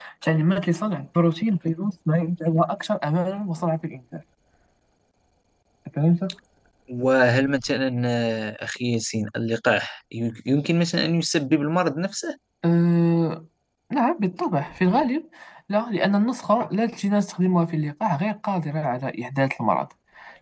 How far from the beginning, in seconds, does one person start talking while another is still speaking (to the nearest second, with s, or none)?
none